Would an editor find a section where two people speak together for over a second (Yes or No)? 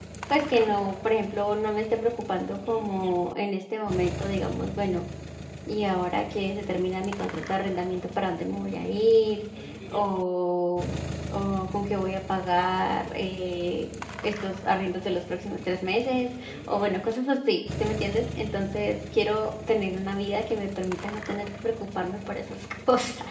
No